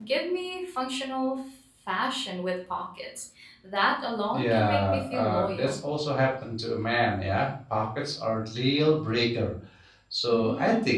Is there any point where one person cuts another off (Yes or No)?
Yes